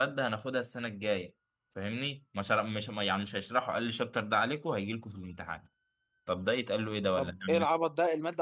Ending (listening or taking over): taking over